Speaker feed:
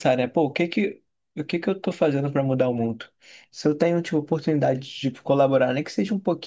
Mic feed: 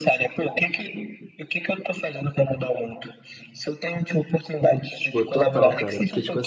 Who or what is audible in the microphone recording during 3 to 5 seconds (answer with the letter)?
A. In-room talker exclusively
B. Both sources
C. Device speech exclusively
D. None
C